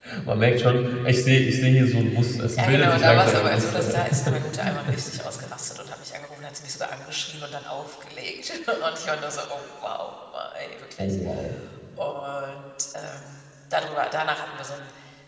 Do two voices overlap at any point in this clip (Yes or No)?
Yes